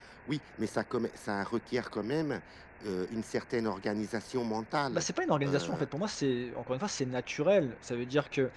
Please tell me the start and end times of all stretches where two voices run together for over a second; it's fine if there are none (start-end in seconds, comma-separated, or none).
none